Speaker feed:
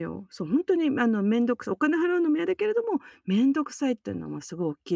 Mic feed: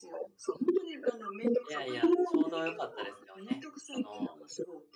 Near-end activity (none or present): present